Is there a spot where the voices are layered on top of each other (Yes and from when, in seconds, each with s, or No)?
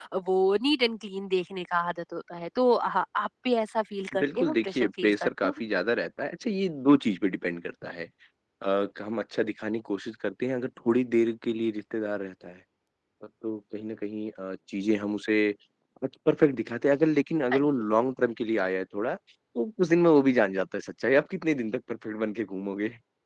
Yes, from 4.2 s